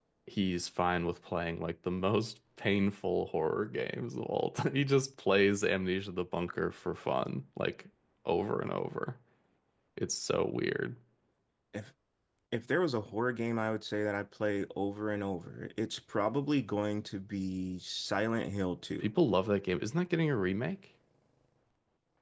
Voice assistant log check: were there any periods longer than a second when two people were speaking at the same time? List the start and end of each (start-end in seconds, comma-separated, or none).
none